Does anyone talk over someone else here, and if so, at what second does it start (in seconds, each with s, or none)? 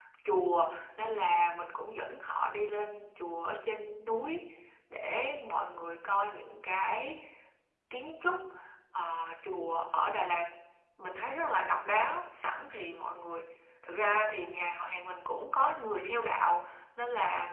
none